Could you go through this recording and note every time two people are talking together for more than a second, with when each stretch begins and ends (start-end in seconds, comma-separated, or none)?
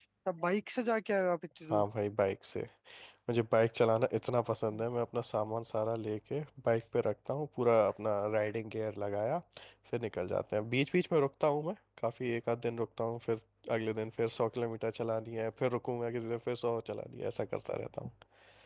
none